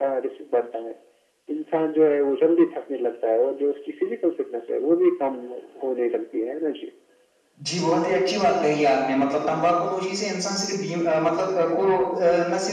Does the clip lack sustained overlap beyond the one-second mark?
Yes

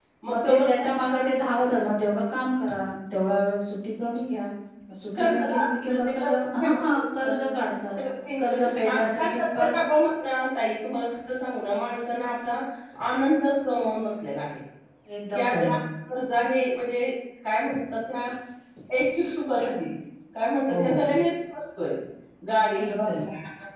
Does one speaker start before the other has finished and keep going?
Yes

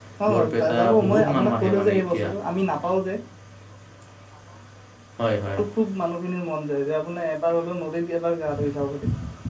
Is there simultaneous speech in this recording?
Yes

